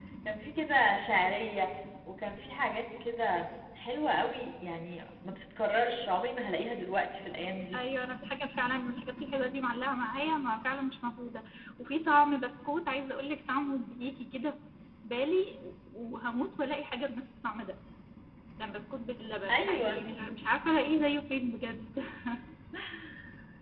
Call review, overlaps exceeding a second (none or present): none